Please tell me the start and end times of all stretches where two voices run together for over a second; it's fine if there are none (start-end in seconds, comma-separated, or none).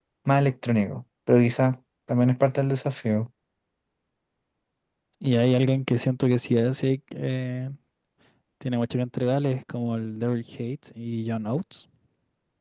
none